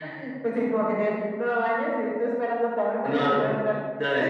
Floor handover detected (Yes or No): Yes